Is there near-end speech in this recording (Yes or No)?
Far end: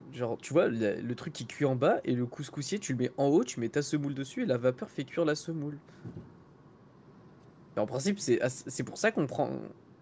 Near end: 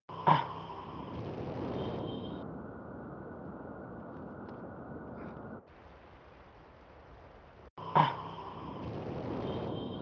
No